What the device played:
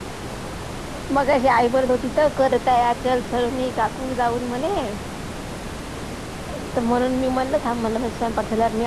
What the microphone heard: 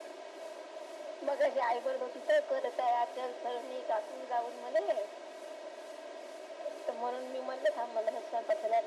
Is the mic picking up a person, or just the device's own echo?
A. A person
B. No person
B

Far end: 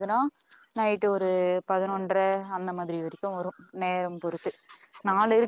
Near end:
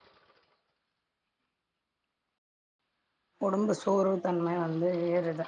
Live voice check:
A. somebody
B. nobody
A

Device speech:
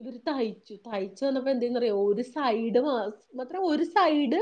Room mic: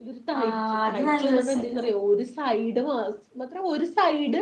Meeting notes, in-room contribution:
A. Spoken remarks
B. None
A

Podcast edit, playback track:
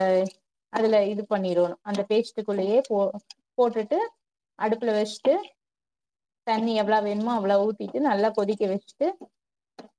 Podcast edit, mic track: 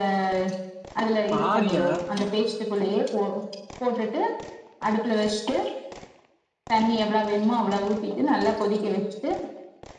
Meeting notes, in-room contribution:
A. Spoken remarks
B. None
A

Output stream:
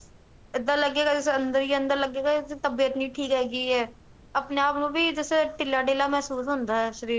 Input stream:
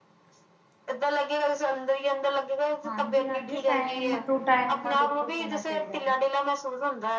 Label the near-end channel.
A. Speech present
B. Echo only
A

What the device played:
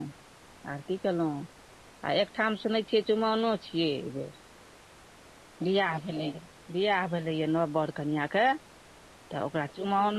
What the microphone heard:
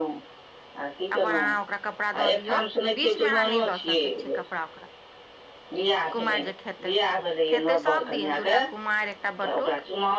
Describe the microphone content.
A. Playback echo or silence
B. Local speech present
B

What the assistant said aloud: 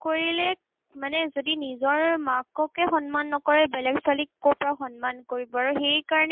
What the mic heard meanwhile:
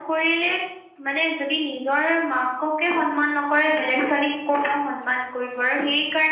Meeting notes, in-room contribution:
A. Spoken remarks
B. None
B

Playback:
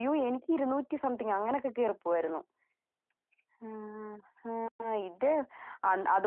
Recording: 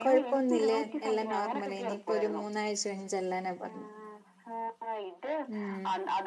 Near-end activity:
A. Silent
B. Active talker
B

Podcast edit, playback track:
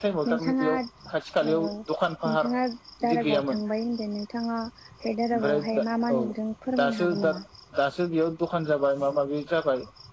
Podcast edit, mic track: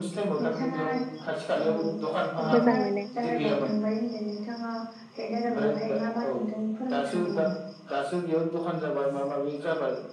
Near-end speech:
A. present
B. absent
A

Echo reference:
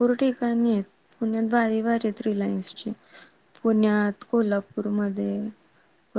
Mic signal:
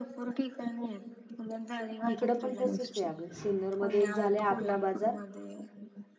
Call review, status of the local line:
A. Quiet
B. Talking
B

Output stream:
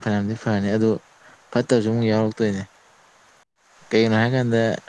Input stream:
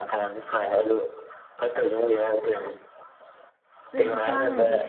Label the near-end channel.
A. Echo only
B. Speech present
B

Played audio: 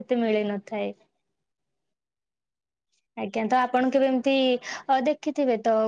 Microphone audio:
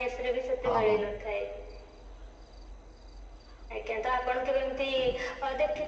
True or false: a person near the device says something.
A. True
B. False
A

